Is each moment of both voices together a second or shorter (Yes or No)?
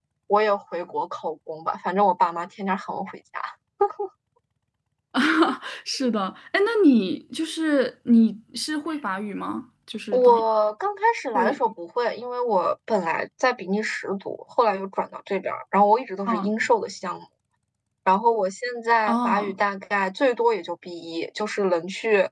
Yes